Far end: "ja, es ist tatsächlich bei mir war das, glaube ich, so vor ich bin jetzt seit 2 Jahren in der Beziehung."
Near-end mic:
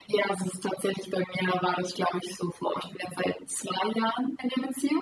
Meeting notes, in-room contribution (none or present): none